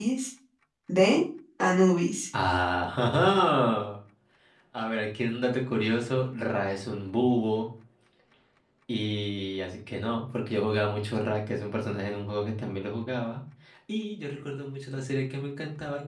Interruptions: none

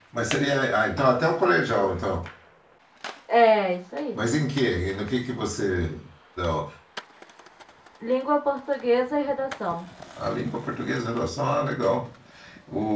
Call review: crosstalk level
none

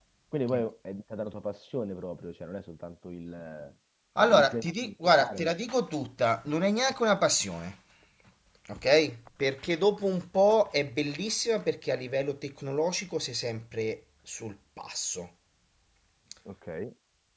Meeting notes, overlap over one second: present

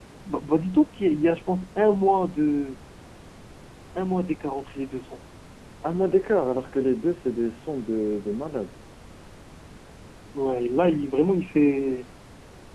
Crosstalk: none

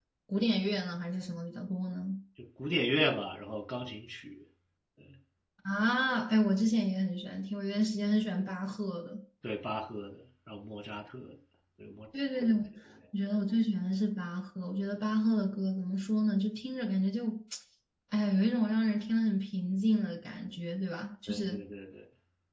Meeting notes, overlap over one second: none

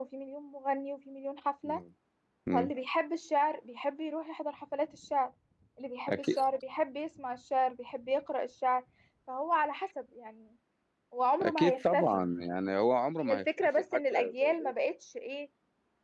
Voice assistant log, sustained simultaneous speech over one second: present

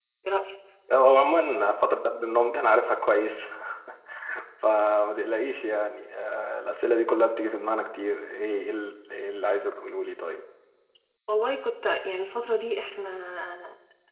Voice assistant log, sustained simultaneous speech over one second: none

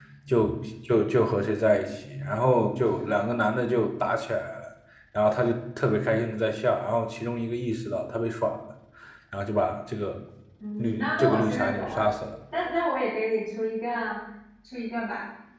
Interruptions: present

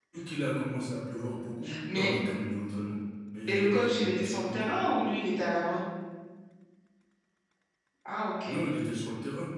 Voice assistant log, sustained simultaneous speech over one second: present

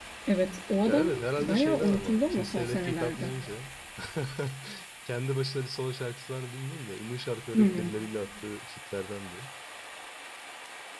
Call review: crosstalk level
present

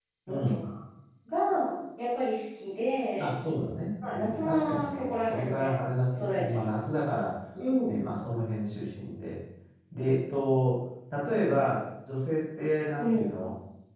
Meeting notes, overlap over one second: present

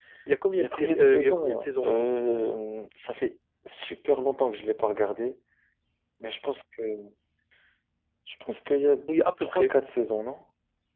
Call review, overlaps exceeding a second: present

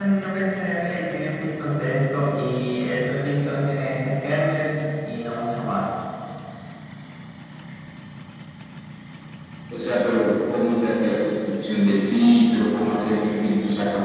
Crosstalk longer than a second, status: none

